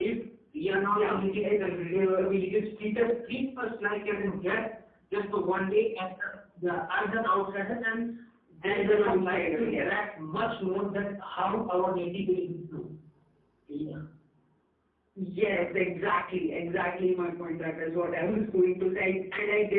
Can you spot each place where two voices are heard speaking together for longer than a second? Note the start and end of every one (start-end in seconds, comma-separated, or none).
0.7-2.2, 8.6-10.1